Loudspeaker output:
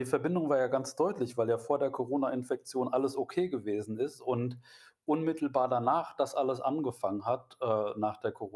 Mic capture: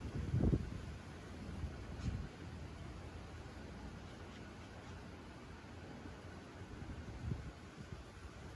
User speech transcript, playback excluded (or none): none